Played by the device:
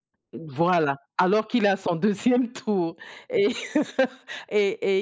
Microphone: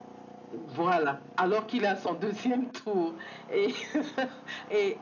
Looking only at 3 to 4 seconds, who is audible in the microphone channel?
echo only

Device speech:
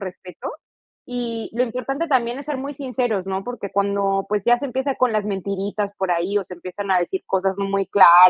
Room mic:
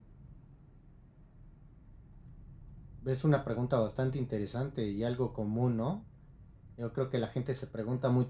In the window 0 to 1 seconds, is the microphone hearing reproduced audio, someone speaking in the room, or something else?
neither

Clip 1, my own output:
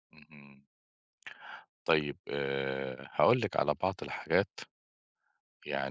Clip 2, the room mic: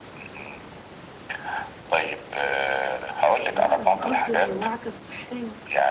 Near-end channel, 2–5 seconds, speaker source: both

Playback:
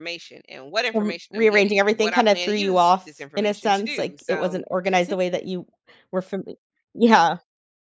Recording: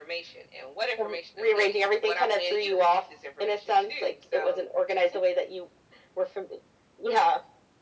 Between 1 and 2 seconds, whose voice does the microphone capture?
echo only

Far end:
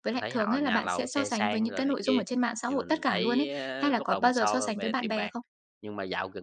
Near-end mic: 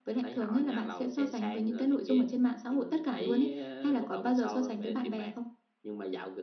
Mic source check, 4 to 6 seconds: echo only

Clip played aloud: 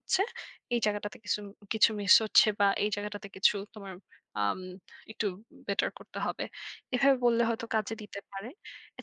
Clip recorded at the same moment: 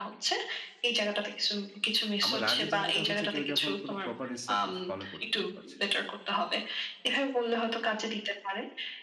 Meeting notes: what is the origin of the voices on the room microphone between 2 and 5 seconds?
both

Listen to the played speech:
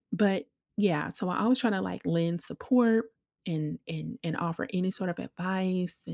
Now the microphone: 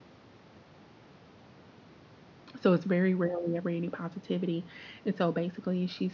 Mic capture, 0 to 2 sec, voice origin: neither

